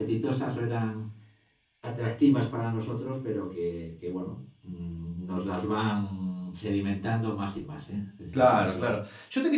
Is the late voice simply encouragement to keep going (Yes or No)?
No